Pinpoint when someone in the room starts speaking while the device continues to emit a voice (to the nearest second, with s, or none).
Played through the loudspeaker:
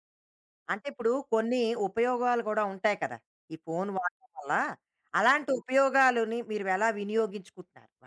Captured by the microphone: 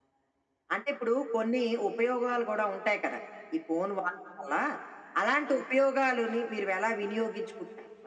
none